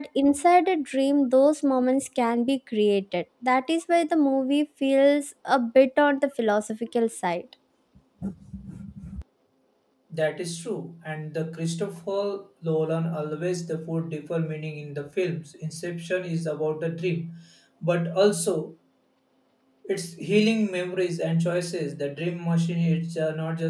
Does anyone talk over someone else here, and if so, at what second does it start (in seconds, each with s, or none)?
none